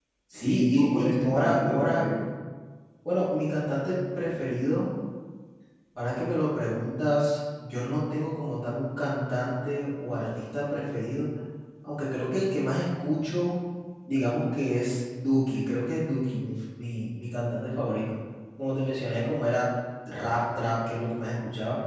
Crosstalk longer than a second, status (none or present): present